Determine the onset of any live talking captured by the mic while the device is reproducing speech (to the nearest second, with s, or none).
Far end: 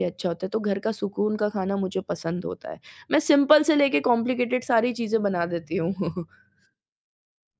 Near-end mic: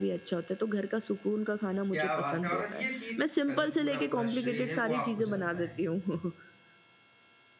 2 s